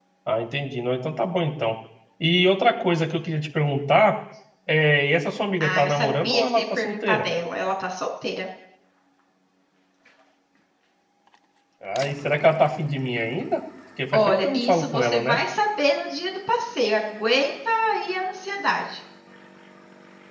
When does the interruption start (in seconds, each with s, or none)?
5.6 s